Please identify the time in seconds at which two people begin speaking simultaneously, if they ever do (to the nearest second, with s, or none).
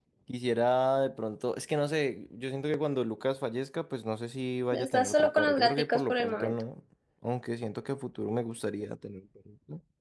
5 s